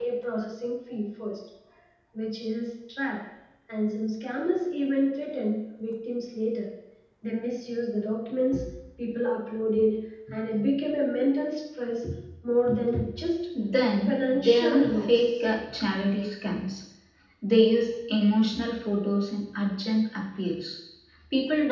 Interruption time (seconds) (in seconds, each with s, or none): 14.1 s